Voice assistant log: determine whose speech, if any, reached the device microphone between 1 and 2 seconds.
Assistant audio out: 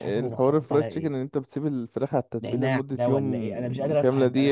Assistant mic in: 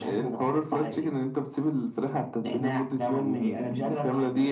echo only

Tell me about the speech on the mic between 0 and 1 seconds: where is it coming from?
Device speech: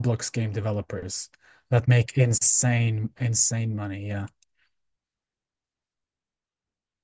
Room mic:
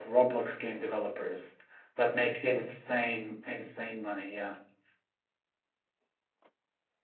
echo only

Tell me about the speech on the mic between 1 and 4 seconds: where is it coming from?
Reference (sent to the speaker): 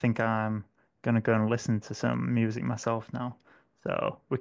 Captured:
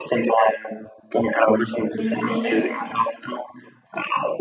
both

